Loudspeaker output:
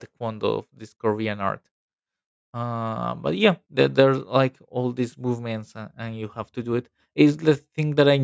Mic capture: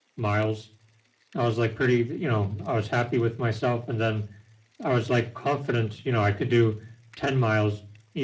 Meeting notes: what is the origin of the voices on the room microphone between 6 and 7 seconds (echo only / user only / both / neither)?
user only